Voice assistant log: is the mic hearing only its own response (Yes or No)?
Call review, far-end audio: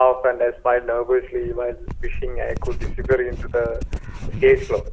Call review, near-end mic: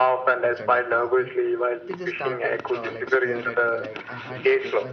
No